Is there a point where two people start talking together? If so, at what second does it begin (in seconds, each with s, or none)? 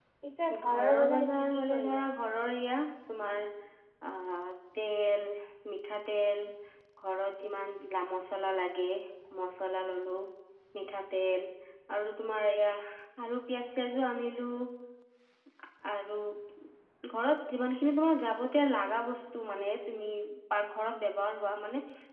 0.6 s